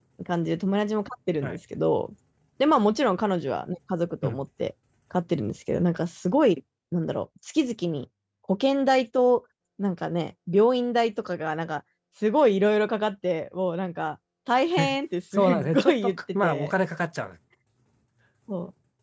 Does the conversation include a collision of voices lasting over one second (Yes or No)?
Yes